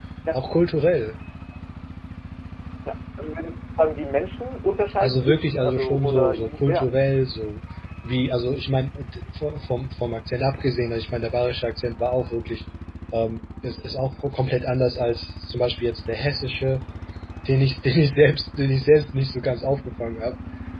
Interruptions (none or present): present